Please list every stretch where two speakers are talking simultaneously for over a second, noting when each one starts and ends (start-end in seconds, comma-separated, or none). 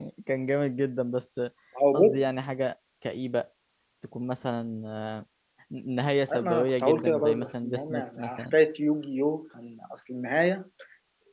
6.3-8.5